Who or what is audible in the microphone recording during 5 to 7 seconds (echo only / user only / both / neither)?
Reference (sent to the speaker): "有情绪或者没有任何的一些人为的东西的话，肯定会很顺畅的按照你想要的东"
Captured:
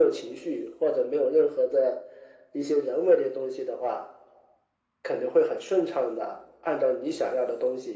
echo only